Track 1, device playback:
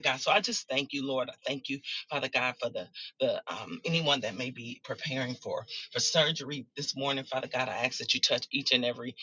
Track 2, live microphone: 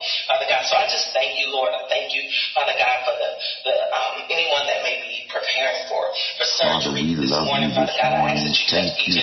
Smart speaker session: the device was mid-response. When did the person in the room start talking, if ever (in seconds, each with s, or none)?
6.5 s